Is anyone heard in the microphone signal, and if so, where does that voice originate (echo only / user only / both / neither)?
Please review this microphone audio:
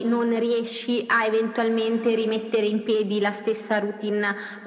echo only